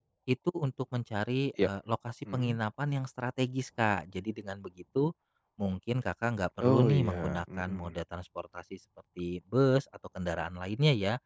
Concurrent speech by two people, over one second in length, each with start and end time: 6.6-7.9

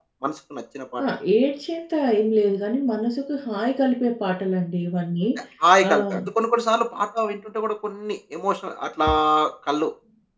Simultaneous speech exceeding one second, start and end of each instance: none

